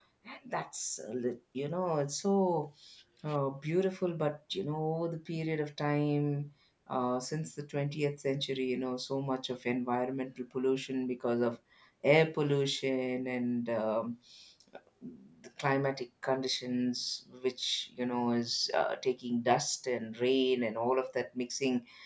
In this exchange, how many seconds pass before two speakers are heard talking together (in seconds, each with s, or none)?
none